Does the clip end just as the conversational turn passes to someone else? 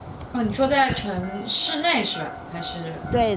Yes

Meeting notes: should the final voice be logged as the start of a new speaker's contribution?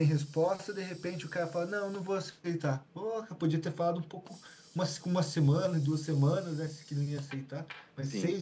No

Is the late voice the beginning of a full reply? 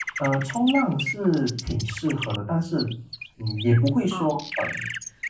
No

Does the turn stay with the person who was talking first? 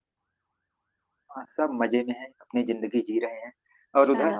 No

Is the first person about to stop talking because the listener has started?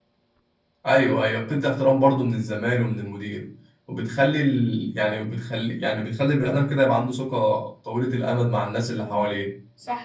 Yes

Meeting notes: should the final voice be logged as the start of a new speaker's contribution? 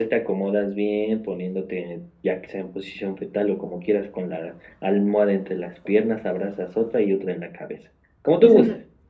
Yes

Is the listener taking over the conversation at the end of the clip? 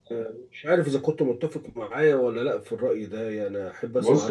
Yes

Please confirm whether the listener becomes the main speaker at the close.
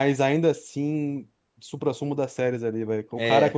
No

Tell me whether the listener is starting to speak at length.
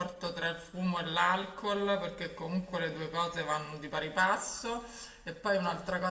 No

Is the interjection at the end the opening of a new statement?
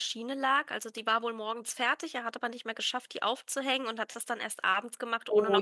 Yes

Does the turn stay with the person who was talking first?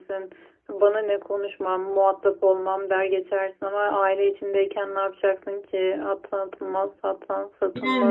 No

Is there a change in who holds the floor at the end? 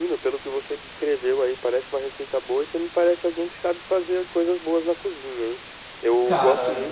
No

